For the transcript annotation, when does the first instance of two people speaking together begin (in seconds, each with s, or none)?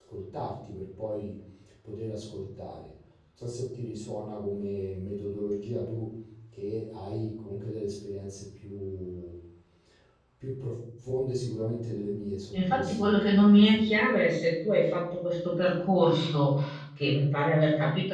12.5 s